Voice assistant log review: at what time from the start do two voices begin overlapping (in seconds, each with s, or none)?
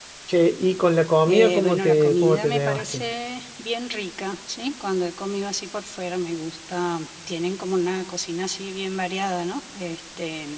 1.3 s